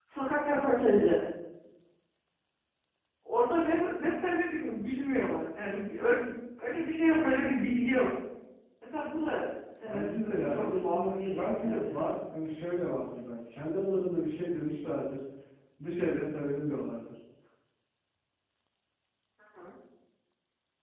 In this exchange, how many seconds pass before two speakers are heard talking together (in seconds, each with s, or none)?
9.8 s